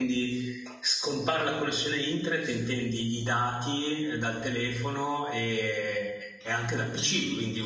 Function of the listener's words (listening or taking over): taking over